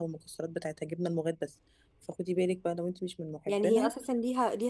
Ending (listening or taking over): taking over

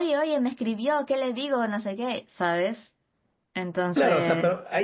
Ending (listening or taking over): taking over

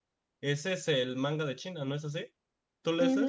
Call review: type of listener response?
taking over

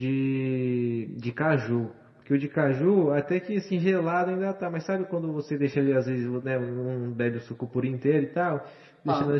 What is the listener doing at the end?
listening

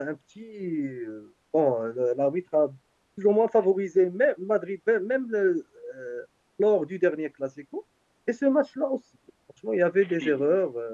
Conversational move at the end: listening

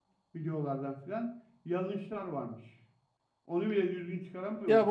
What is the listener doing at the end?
taking over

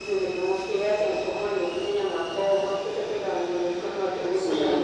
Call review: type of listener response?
listening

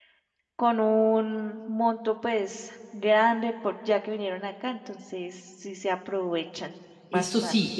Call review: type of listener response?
taking over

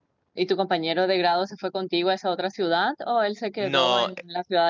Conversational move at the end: listening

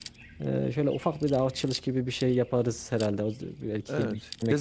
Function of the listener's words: taking over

